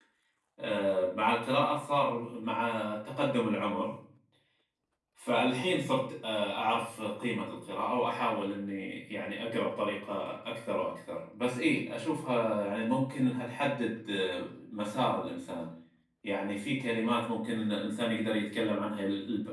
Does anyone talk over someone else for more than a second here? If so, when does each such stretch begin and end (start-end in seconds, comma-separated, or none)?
none